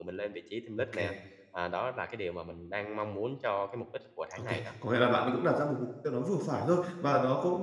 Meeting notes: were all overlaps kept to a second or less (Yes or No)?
Yes